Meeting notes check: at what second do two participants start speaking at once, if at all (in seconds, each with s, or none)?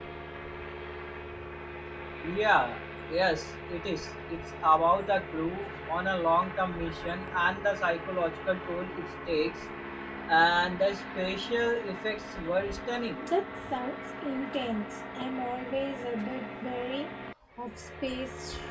none